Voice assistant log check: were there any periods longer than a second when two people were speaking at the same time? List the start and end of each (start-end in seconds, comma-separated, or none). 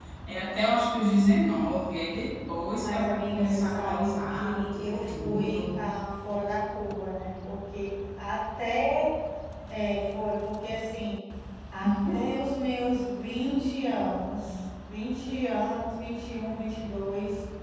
2.8-5.8